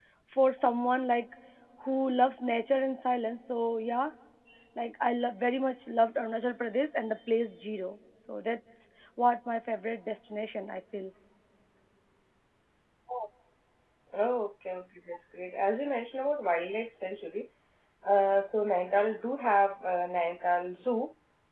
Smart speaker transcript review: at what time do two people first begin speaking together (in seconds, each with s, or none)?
none